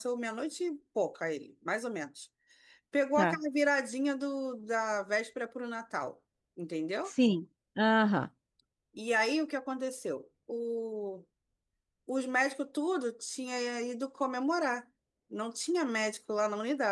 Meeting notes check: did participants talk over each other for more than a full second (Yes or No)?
No